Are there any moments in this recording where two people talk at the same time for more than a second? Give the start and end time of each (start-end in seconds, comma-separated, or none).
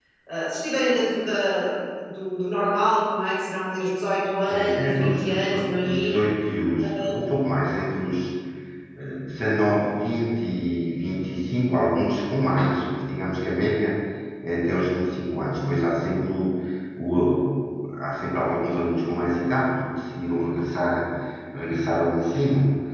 4.5-6.2